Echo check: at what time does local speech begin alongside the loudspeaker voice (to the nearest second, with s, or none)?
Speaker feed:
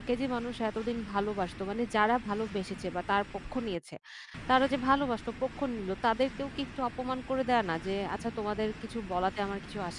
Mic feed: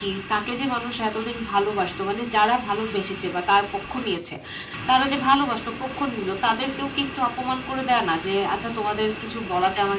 none